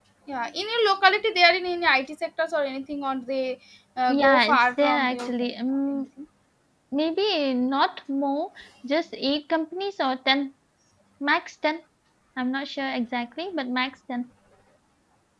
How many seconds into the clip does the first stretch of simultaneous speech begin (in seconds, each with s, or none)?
4.1 s